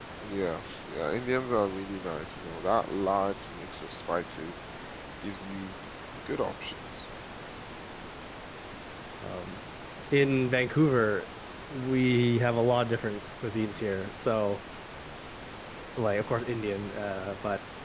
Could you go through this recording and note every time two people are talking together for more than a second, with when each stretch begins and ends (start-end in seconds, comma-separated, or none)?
none